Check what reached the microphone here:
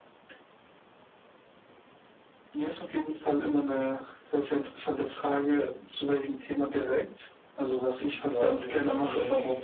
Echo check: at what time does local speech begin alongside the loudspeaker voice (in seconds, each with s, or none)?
7.5 s